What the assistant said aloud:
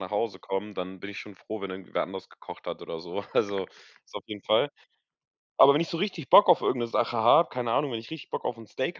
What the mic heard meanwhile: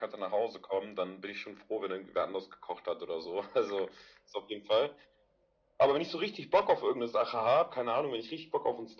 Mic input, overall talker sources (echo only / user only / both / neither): echo only